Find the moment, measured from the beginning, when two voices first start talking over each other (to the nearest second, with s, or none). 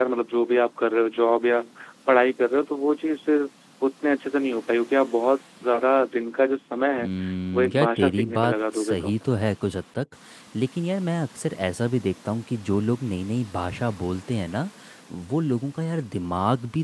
8 s